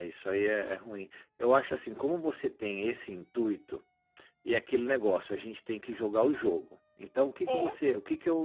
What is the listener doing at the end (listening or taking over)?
listening